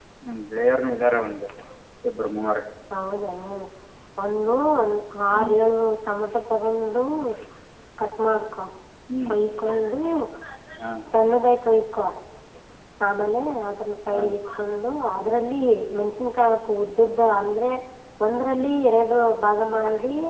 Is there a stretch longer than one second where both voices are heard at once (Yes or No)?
No